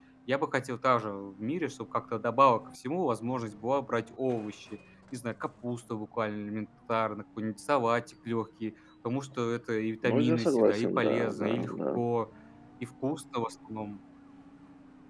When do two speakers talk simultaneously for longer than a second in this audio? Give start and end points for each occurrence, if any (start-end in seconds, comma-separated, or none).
10.0-12.0